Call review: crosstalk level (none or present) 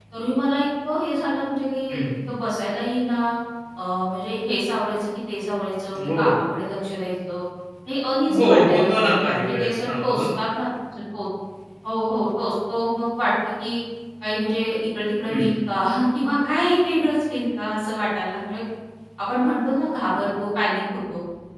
present